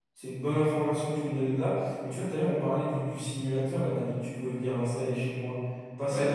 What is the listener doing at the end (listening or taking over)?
listening